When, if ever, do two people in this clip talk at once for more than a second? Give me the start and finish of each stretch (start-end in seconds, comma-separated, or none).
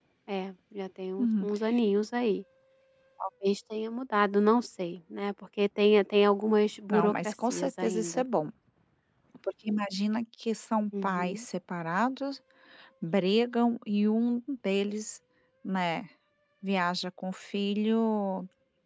6.9-8.2